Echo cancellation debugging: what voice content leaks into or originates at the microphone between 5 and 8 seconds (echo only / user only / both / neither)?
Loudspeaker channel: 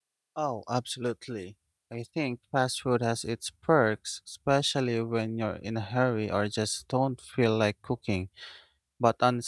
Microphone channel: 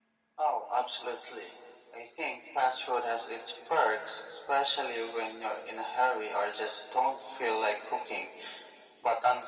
echo only